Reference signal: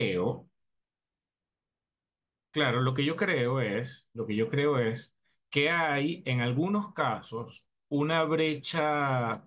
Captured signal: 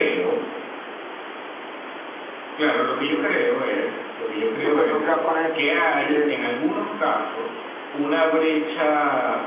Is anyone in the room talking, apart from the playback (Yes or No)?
Yes